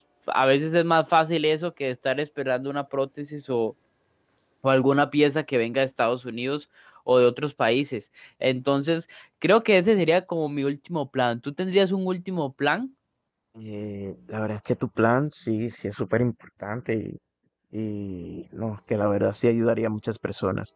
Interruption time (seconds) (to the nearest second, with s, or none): none